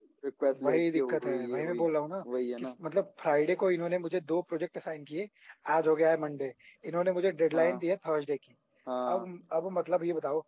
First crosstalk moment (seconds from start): 0.6 s

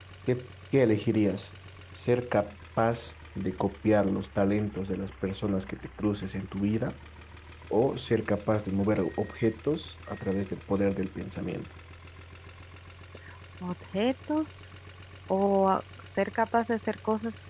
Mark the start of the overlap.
none

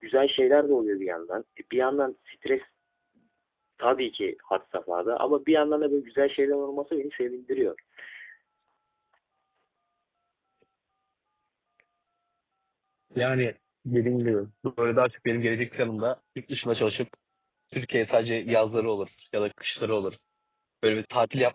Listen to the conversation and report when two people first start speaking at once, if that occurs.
none

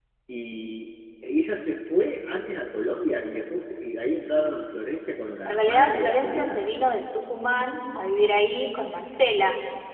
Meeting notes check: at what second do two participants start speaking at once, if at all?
5.4 s

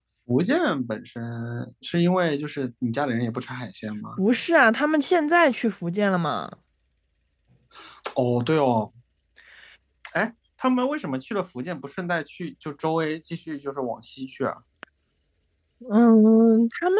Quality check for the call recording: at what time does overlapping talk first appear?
none

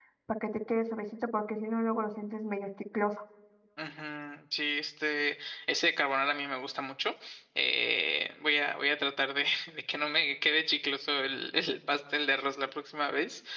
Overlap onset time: none

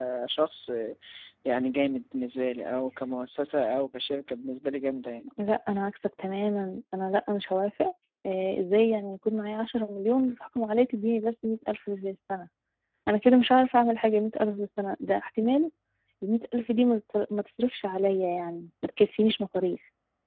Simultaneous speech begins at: none

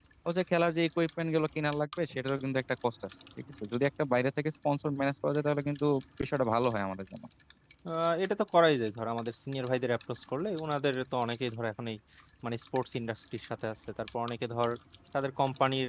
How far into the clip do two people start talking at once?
none

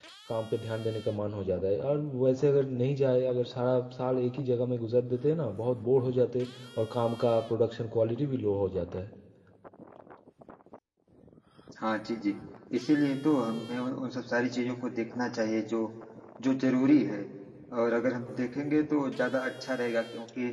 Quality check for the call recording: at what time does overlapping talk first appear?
none

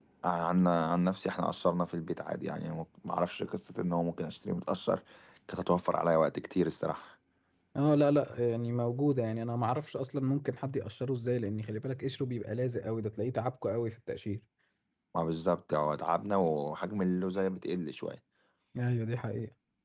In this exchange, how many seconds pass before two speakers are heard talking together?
none

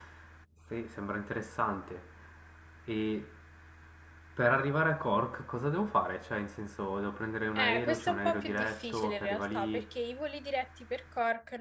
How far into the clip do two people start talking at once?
7.6 s

